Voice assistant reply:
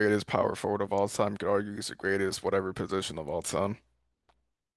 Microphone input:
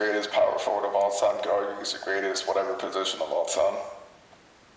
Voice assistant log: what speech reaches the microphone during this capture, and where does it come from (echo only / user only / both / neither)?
echo only